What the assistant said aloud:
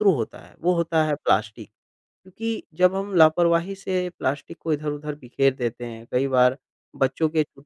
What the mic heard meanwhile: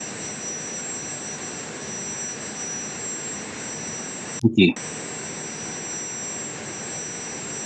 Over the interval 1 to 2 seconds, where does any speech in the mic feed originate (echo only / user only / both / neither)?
neither